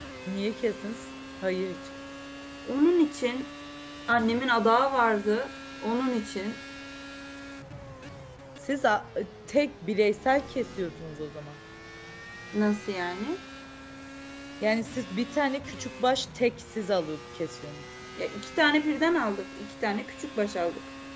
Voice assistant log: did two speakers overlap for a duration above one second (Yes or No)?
No